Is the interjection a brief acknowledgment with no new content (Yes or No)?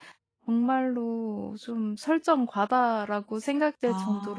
Yes